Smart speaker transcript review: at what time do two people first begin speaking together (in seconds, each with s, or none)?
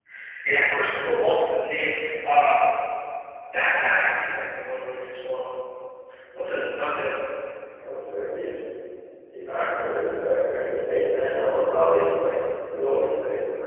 none